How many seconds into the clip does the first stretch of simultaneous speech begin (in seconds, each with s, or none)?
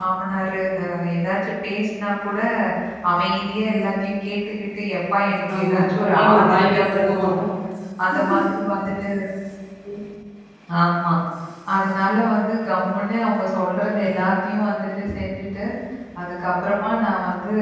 5.5 s